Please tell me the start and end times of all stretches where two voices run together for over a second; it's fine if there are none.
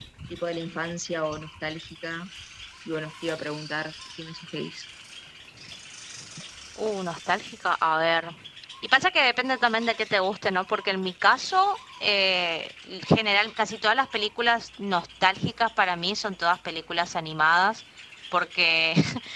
none

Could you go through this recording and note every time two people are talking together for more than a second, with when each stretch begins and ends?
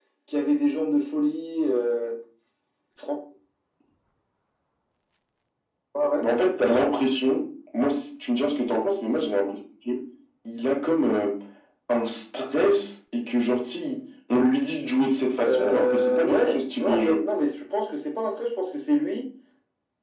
15.4-17.2

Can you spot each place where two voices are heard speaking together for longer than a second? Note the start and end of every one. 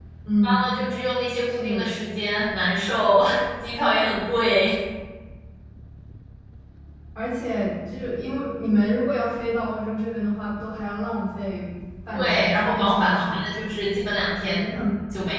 12.1-13.6

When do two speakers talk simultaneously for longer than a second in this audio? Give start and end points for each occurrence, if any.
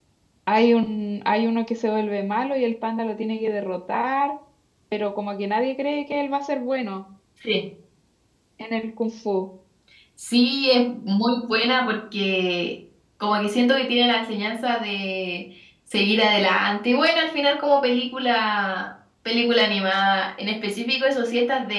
none

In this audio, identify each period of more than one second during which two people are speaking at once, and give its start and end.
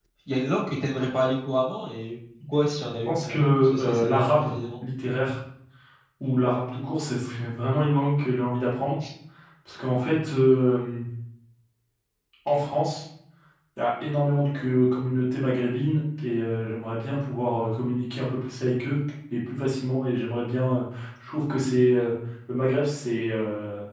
3.0-4.5

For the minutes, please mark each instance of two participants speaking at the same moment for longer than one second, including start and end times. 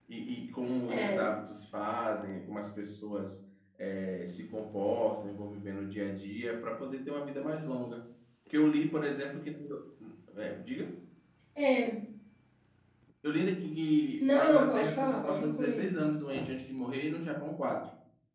14.2-15.9

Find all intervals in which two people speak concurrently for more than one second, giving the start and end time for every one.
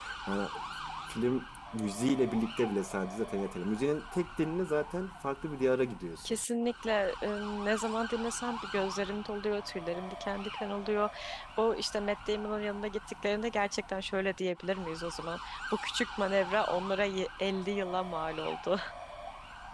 none

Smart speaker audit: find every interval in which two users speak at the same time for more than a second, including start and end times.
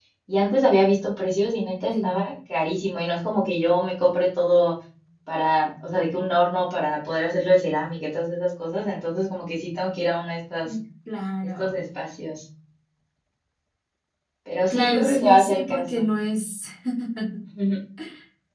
14.7-16.1

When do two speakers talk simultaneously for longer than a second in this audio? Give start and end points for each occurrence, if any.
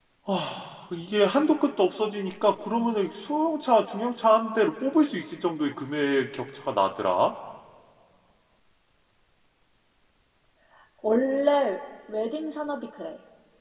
none

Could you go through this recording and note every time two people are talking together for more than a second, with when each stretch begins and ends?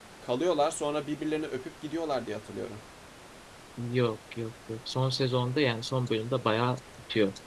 none

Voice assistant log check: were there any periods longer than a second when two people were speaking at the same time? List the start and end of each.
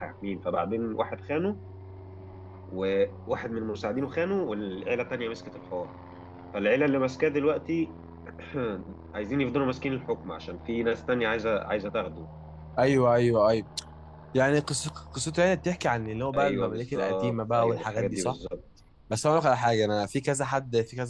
16.4-18.4

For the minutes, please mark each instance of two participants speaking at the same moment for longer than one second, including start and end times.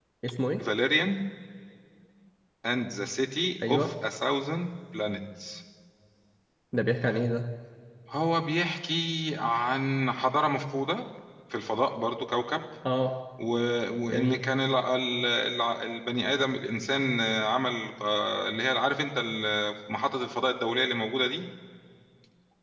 none

